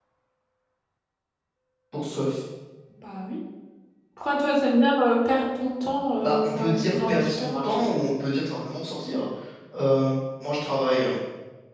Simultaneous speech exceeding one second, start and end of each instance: 6.2-7.9

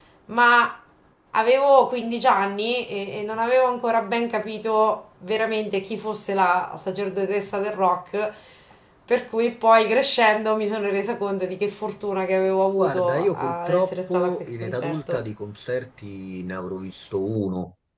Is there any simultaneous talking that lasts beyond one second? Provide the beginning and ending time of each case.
12.8-15.3

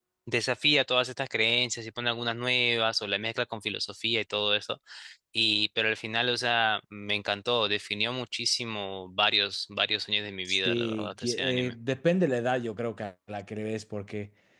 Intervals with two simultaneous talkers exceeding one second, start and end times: 10.4-11.7

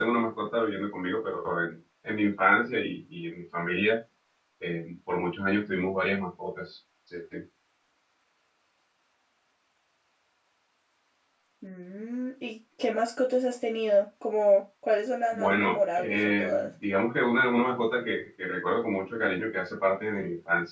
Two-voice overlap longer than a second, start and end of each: 15.3-16.7

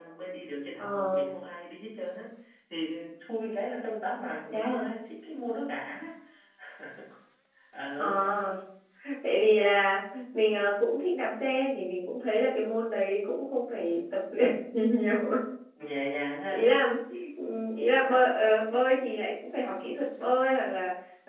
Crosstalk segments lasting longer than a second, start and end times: none

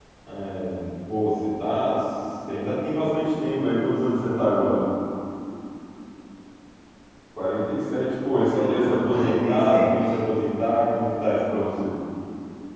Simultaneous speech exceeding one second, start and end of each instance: 8.5-10.1

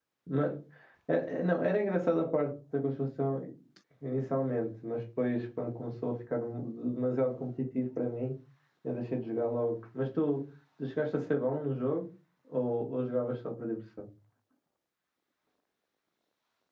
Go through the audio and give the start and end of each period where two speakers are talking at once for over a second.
none

